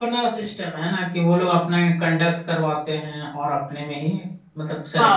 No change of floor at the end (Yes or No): No